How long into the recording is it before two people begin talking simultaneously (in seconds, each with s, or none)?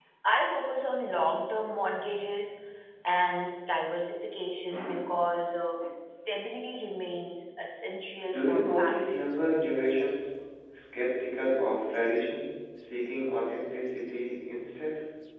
8.1 s